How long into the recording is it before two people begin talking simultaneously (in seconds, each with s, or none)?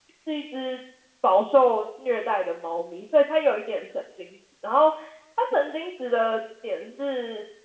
none